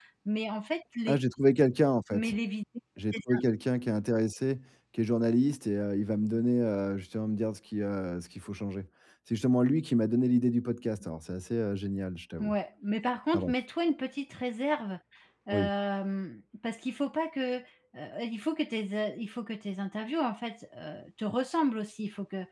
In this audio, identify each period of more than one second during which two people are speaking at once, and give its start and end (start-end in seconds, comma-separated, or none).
none